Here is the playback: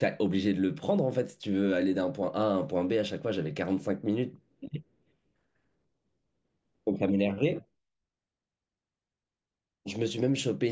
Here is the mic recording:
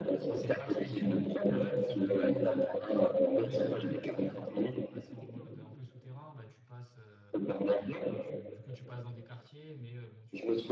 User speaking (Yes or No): Yes